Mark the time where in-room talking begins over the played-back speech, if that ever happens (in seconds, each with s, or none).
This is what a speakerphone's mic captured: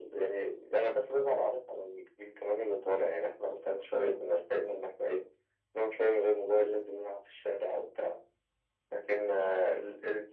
none